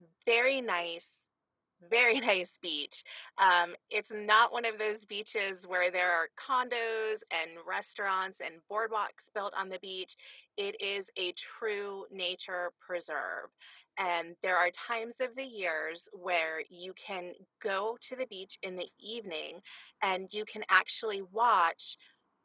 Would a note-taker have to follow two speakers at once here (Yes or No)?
No